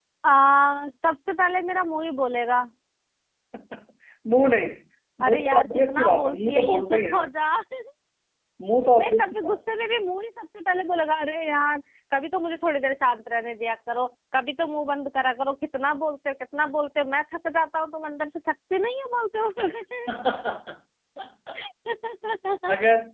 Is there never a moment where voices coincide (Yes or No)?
No